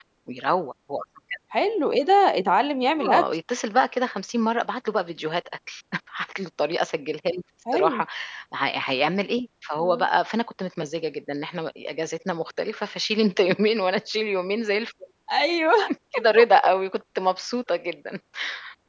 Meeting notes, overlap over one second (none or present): none